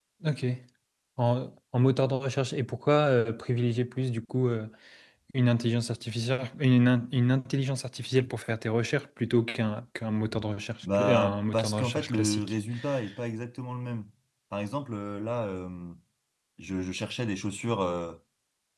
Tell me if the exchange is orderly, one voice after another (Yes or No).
No